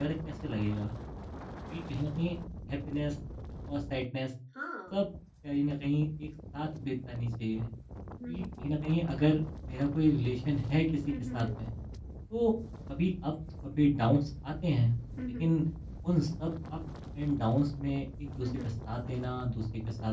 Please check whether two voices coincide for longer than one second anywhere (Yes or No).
No